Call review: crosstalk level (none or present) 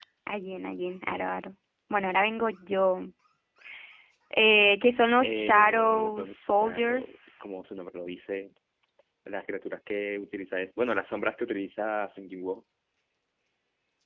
present